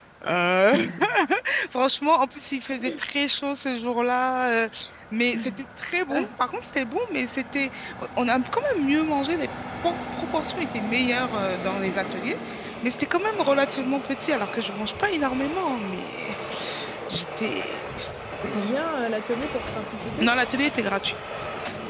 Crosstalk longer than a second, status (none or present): none